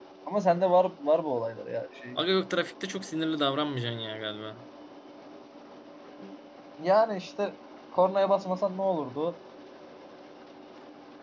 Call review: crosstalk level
none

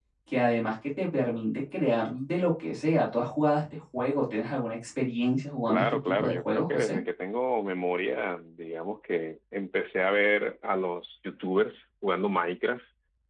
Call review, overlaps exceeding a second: present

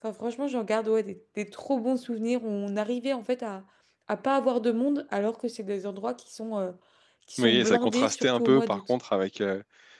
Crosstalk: present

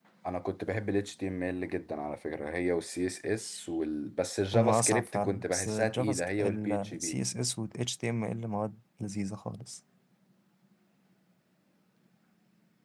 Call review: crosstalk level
present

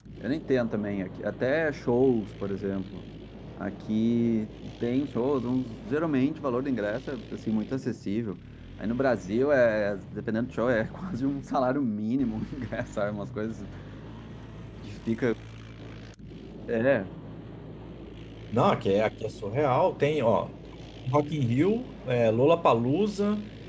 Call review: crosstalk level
none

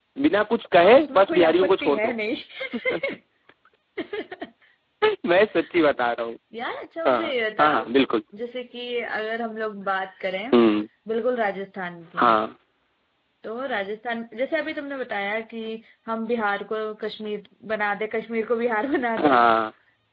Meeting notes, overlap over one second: present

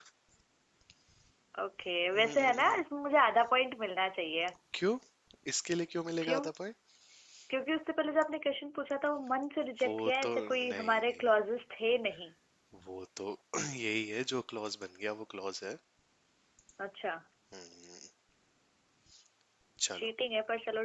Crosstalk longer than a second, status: present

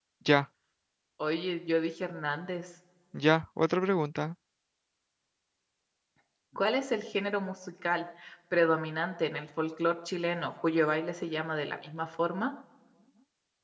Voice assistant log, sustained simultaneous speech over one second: none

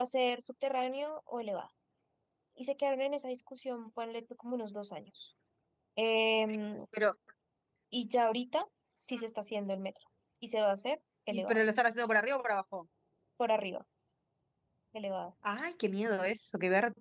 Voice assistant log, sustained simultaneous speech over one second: none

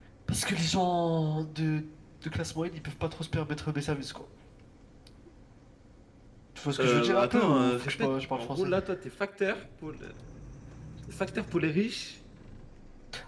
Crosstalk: present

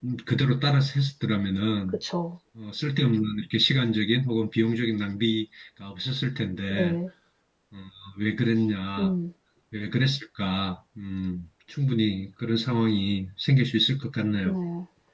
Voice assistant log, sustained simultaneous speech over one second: none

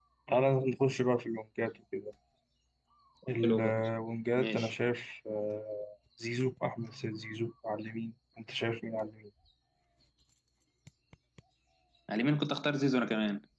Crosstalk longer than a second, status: none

